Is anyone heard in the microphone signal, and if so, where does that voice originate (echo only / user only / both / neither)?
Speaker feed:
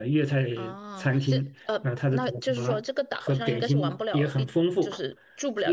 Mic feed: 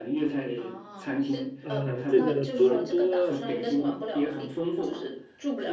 both